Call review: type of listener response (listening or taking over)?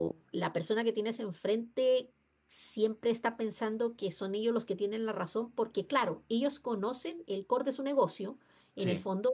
listening